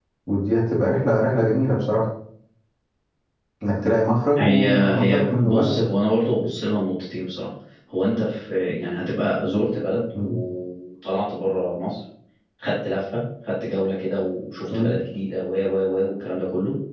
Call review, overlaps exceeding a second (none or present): present